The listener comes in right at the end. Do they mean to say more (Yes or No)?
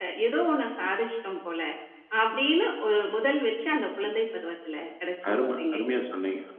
Yes